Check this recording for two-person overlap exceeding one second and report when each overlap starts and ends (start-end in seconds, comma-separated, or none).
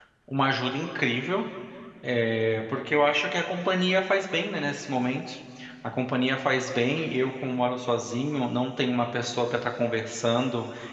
none